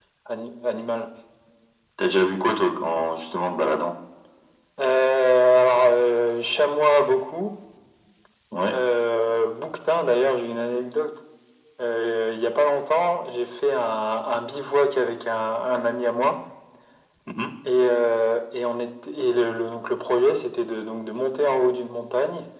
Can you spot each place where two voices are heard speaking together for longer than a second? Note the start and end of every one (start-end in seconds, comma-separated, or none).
none